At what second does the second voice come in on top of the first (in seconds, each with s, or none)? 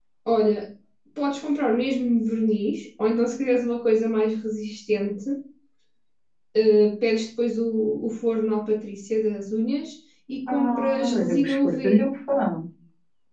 10.5 s